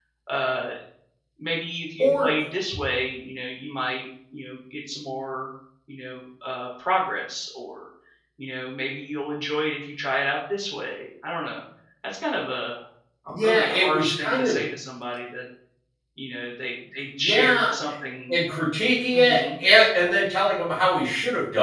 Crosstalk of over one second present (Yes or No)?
Yes